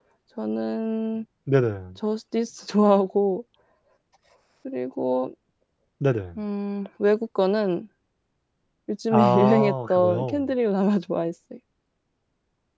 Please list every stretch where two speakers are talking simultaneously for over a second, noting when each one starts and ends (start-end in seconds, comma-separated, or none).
9.1-10.4